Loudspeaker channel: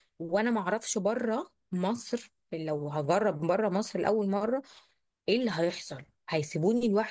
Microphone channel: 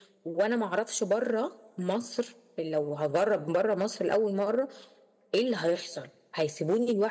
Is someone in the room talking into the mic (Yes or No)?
No